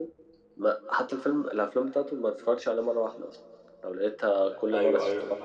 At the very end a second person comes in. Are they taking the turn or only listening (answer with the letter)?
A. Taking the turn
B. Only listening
A